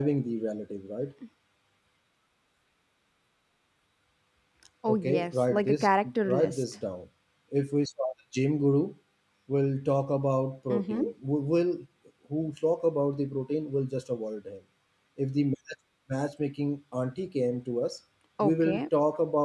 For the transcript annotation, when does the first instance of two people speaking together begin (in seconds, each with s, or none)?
4.9 s